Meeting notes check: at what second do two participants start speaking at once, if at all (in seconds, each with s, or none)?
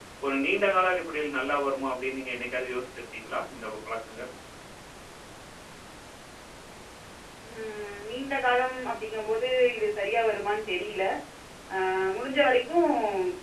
none